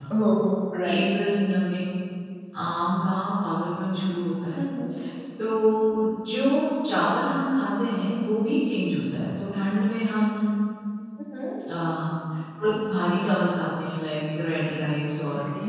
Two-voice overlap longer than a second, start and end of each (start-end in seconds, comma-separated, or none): none